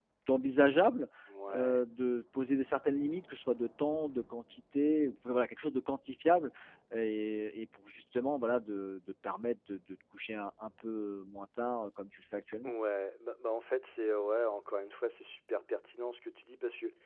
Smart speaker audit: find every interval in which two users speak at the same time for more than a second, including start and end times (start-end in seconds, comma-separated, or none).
none